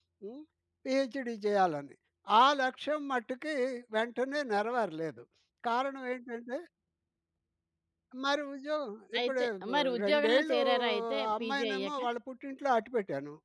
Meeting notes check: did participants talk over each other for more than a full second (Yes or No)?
Yes